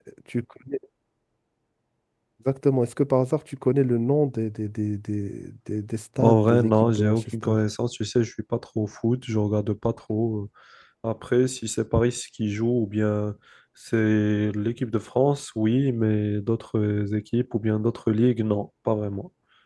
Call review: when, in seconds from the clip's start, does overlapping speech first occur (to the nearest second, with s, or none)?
6 s